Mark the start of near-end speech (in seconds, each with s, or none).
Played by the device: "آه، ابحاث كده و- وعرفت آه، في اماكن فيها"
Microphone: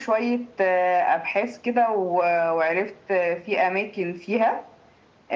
none